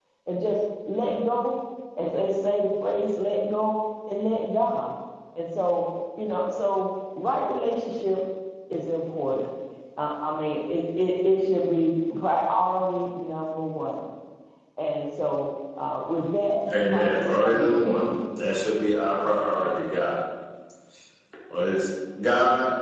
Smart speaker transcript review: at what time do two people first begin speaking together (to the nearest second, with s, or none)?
17 s